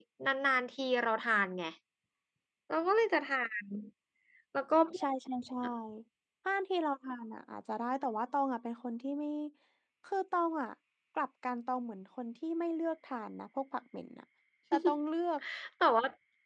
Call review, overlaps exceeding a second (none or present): none